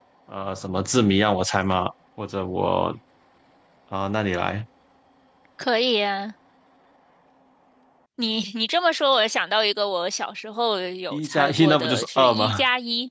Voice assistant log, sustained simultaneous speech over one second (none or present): present